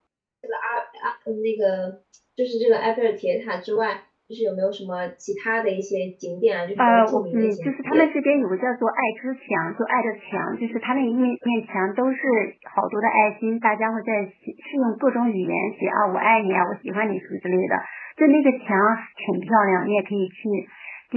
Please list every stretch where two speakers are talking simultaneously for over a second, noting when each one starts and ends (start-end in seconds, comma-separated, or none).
6.8-8.1